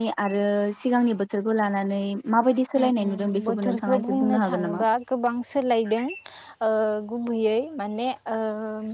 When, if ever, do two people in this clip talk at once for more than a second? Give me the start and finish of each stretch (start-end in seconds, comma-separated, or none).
3.0-4.8